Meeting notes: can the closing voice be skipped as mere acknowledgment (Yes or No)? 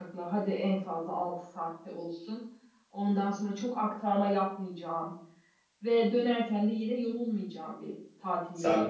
No